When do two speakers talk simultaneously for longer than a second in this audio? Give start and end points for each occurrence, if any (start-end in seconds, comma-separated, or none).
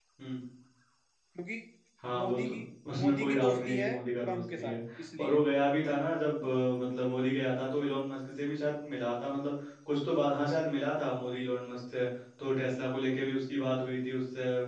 3.0-4.8